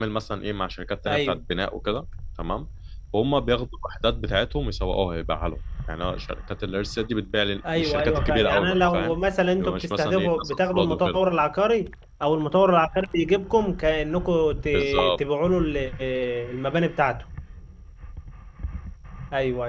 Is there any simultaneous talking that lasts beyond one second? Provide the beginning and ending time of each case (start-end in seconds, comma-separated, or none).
7.8-9.2, 9.6-11.2